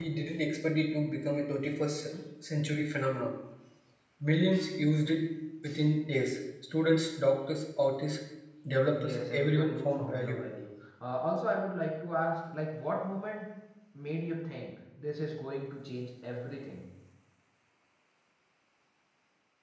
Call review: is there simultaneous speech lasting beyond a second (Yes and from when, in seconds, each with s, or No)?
Yes, from 8.9 s